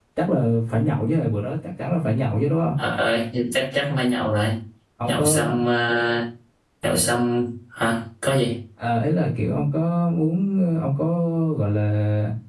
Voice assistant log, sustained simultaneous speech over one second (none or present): none